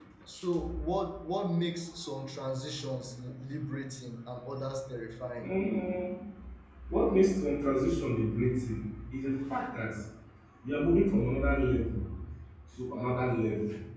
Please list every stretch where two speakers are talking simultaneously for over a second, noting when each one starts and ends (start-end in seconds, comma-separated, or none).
none